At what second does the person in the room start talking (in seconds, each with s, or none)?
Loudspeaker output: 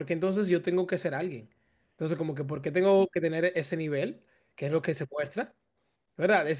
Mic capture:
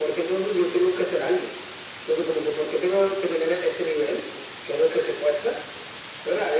none